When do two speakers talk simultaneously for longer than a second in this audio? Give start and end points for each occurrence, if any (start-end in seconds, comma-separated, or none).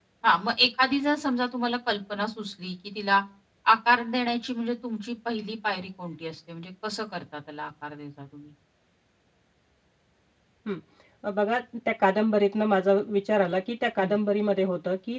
none